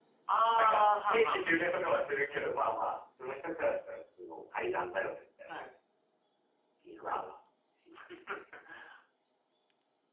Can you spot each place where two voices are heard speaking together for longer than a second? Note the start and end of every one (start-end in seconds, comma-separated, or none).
0.6-1.8